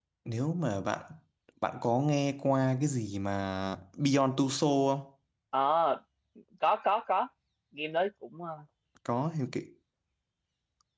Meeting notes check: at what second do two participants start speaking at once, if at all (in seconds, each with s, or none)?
none